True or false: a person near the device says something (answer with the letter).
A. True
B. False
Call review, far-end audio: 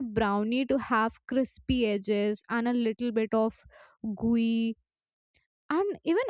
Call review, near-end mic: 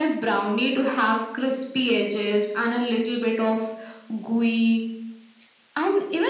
B